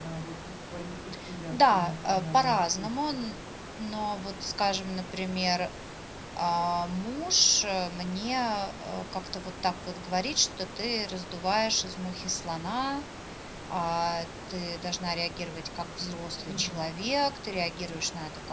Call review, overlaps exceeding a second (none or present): present